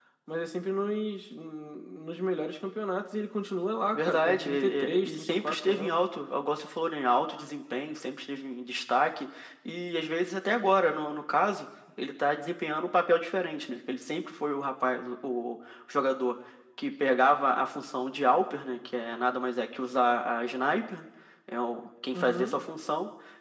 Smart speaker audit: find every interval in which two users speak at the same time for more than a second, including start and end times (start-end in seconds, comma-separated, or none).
3.9-6.0